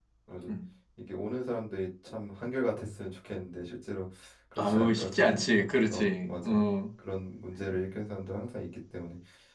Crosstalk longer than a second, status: present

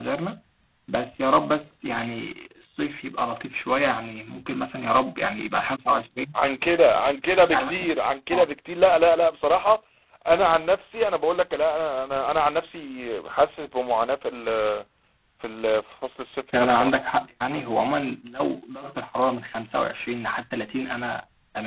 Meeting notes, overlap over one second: none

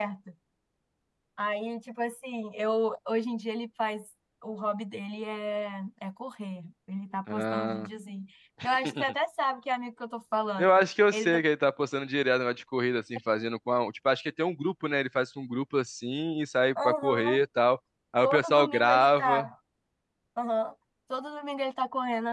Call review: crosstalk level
present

